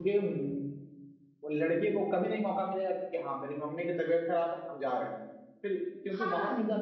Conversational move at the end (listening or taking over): listening